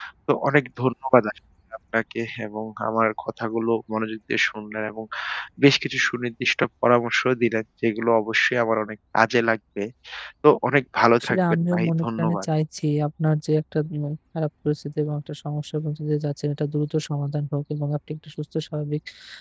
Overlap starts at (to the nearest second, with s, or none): 11 s